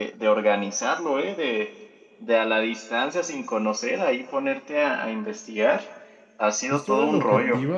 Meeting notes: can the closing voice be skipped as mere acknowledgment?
No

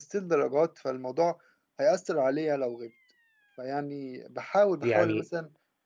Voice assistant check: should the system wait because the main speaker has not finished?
Yes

